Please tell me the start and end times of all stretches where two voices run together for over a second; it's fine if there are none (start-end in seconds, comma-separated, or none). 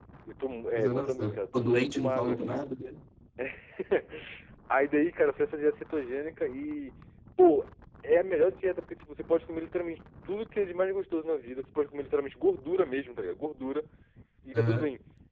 0.8-2.6